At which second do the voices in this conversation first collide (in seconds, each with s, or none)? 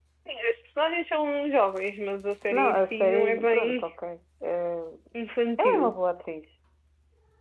2.5 s